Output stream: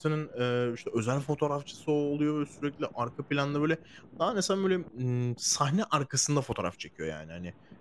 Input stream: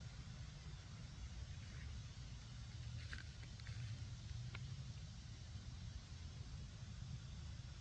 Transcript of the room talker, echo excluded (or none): none